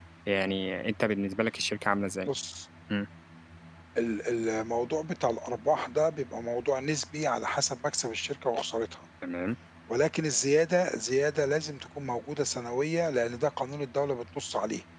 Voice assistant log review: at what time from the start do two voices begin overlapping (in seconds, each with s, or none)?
none